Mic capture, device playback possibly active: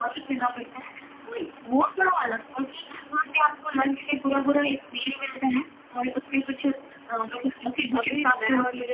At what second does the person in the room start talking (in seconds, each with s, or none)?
8.0 s